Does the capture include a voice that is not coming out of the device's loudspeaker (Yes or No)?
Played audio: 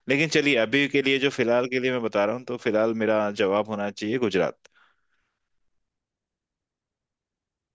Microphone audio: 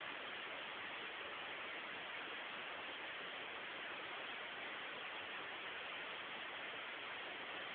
No